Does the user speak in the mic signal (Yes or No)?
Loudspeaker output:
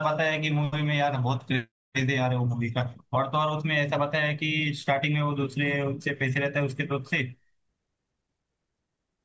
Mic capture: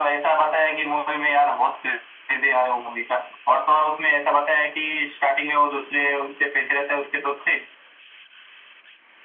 No